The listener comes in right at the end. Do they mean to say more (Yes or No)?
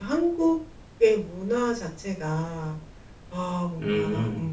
No